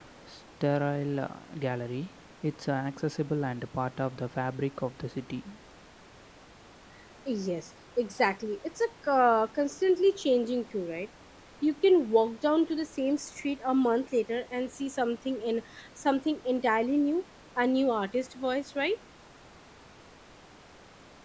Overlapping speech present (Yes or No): No